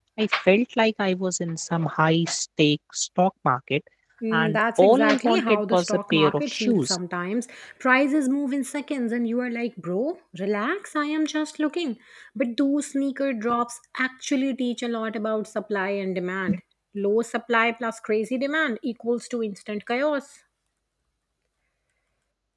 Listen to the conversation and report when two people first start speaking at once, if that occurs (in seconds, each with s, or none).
4.3 s